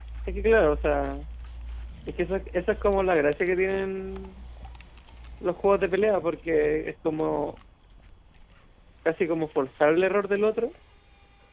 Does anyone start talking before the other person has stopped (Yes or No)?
No